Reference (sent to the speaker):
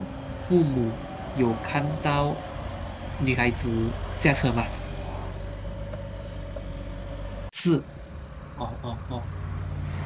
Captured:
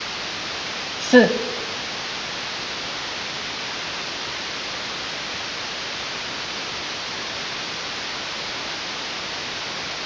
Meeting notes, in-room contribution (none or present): present